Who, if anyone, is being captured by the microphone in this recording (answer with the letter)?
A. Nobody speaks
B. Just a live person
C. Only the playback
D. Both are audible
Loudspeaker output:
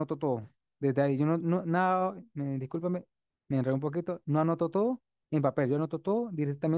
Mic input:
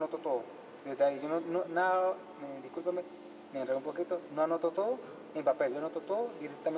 C